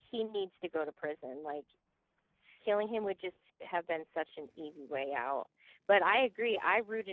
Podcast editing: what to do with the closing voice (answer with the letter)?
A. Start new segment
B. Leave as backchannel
B